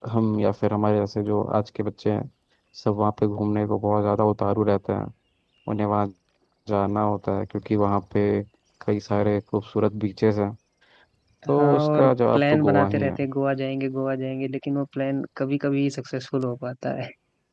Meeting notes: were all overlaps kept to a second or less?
No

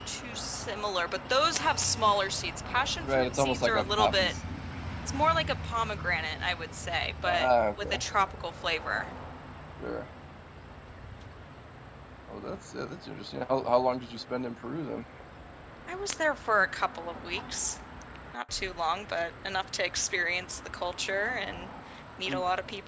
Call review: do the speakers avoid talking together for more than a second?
No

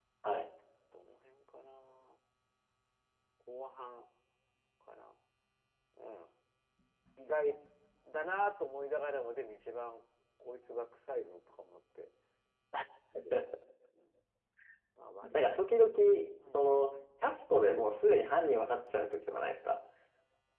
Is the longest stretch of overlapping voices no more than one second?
Yes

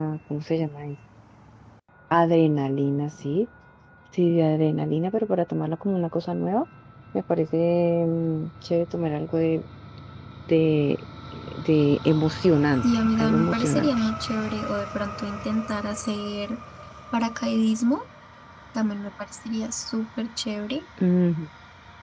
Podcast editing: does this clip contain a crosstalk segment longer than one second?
Yes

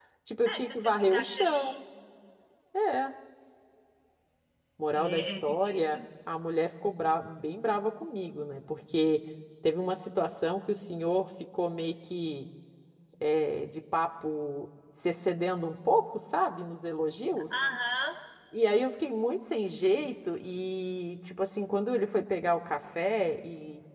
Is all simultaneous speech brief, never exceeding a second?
No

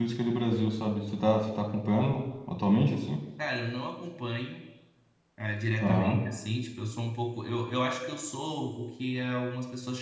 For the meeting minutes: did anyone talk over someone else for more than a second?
No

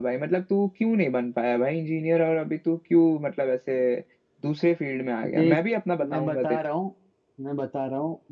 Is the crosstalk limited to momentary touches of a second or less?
Yes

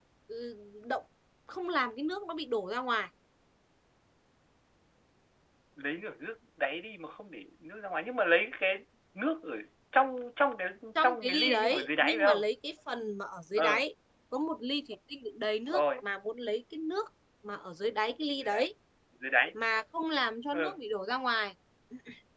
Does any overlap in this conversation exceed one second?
Yes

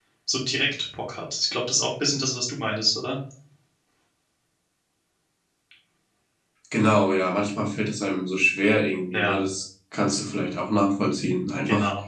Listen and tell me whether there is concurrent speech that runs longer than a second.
No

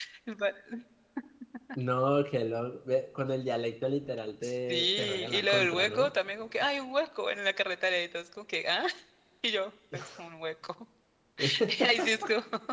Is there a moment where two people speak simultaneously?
Yes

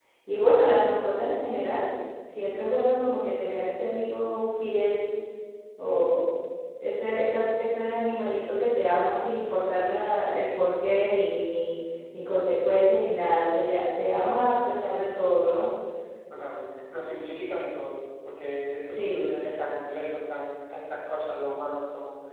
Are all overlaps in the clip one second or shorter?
Yes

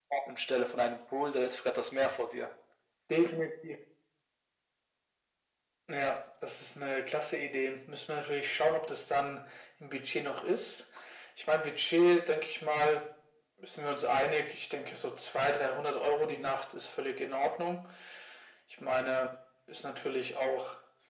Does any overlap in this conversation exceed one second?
No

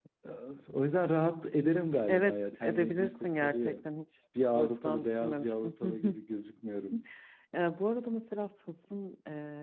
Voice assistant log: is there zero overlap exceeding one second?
No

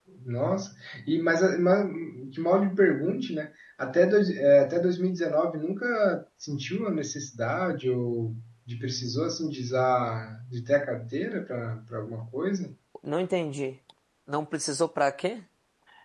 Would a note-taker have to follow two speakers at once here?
No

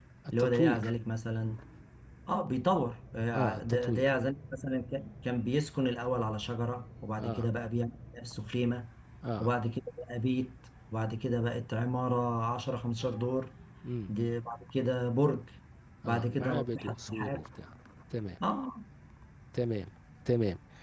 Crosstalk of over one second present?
Yes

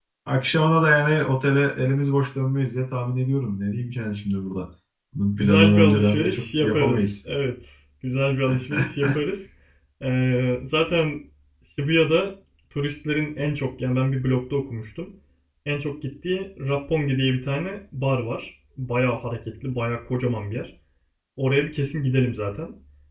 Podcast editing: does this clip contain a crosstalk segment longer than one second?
Yes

